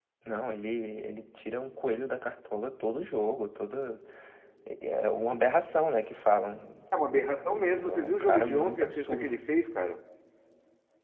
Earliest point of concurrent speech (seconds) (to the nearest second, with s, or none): 7 s